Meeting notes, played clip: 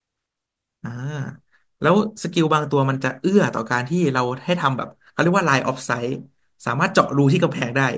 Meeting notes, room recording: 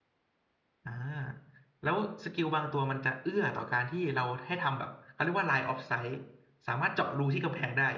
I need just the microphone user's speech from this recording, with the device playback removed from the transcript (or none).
none